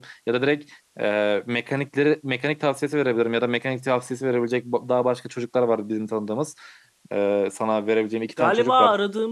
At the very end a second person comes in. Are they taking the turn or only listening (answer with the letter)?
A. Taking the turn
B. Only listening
A